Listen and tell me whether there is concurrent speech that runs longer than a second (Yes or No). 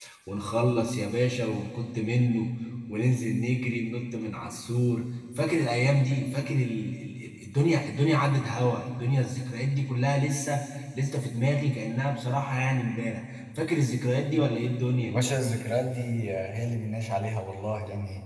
No